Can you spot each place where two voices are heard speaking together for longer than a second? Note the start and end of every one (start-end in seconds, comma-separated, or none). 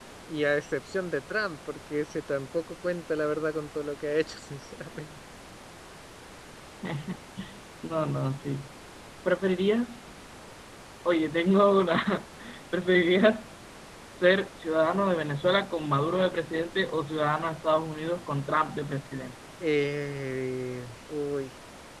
none